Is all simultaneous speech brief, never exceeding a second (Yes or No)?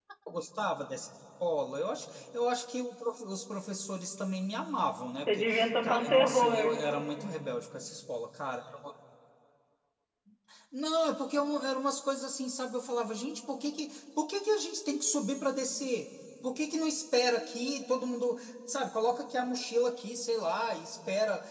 No